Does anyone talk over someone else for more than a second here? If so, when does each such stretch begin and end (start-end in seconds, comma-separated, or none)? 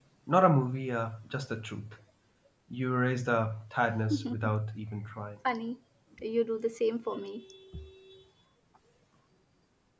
none